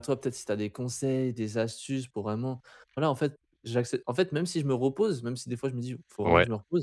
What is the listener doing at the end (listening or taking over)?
listening